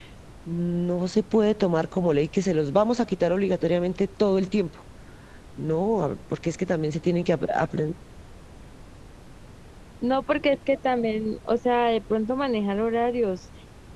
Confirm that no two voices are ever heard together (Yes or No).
Yes